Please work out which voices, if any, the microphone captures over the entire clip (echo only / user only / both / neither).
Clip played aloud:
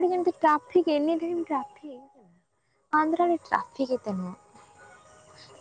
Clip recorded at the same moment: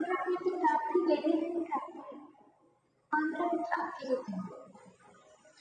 echo only